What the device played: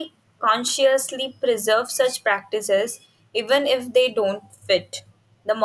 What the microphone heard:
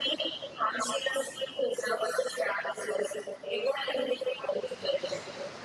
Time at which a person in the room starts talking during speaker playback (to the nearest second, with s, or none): none